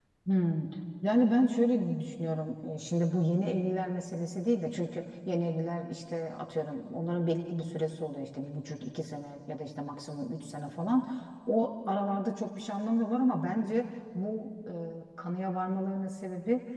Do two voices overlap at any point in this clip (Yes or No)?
No